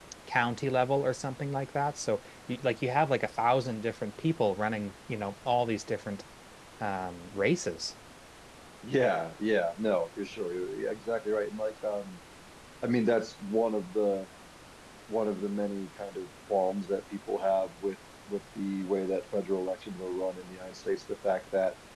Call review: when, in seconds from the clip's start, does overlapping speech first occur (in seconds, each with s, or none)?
none